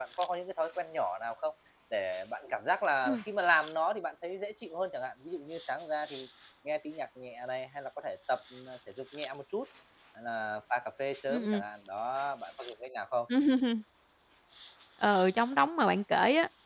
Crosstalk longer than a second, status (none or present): none